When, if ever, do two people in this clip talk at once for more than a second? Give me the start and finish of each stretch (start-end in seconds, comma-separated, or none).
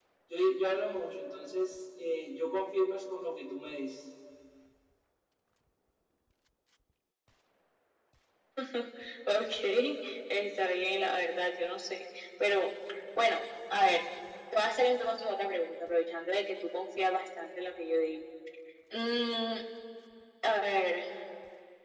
none